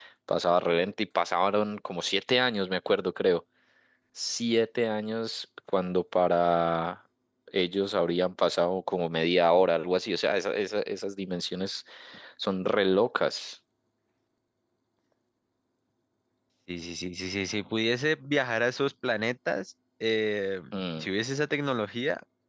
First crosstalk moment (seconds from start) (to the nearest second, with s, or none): none